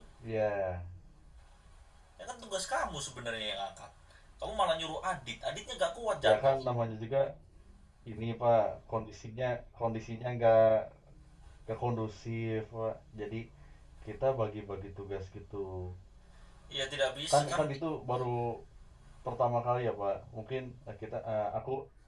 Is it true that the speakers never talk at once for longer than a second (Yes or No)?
Yes